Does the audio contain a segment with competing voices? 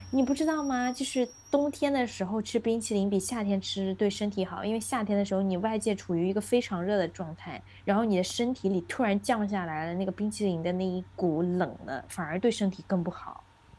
No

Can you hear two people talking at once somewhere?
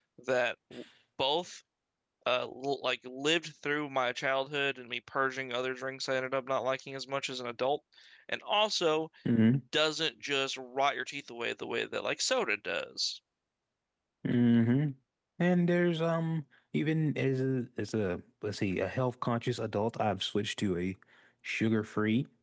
No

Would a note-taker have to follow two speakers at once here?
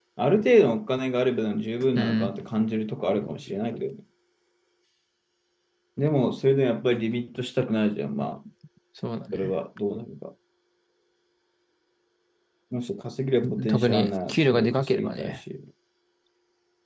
Yes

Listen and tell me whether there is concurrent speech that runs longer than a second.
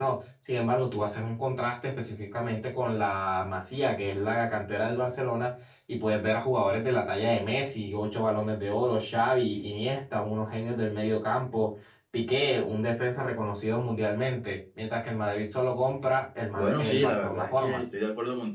Yes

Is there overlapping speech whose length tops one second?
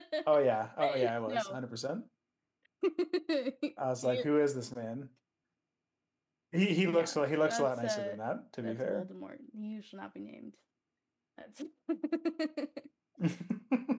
Yes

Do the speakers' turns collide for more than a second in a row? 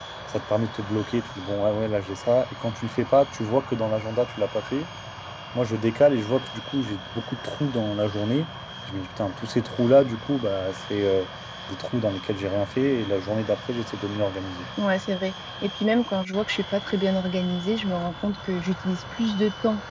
No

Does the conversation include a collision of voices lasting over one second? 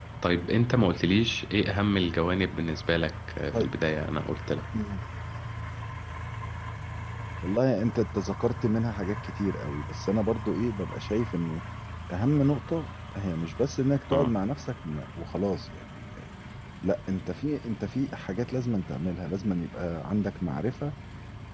No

